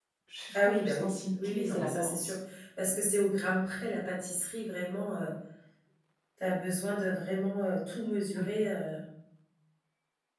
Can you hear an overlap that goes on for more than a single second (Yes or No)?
Yes